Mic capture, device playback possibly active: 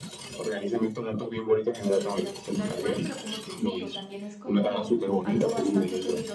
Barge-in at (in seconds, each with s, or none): 1.9 s